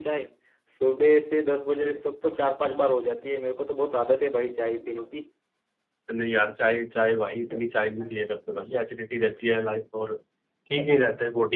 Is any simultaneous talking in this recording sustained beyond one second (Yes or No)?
No